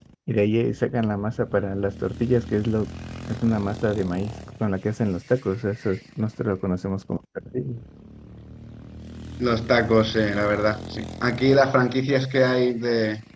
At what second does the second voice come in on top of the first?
none

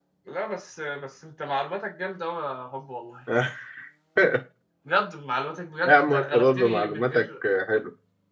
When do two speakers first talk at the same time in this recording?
5.8 s

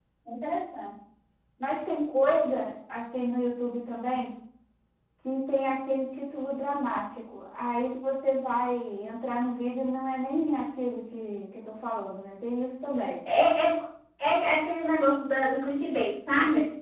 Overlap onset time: none

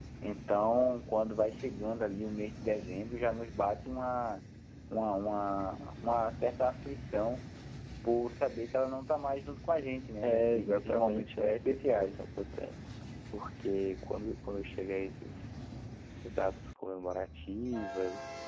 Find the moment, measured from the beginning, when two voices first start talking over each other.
10.2 s

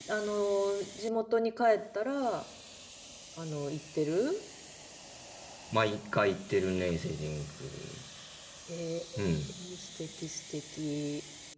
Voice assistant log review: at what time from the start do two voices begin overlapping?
none

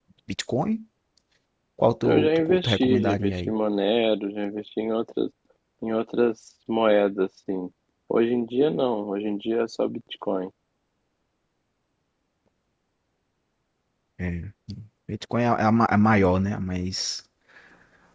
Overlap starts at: 2.0 s

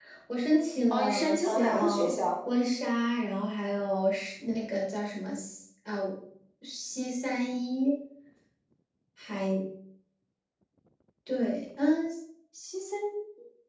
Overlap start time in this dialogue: 0.9 s

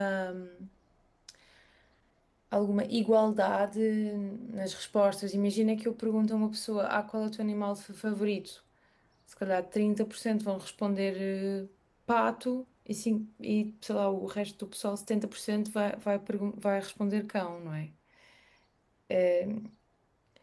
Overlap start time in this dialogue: none

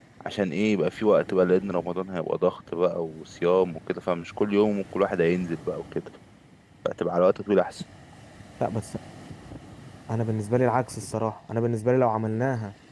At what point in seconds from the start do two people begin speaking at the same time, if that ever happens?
none

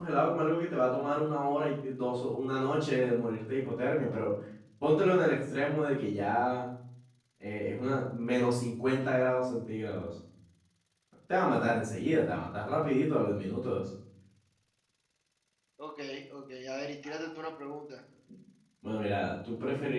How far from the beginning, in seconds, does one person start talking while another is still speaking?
none

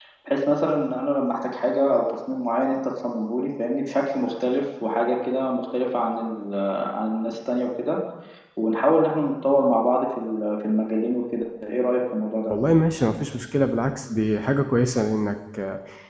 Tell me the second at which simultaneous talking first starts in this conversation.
none

